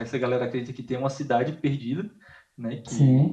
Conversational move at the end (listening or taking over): listening